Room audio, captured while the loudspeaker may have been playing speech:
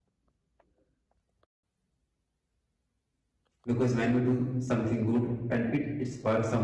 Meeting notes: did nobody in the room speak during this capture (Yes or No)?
No